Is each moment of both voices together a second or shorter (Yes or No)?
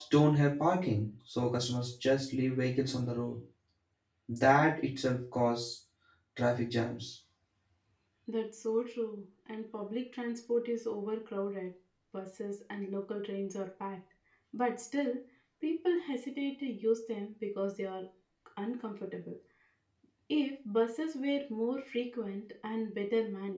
Yes